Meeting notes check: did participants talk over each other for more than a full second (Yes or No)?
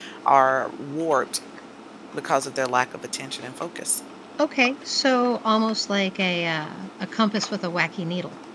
No